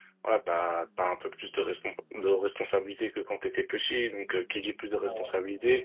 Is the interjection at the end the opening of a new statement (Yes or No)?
No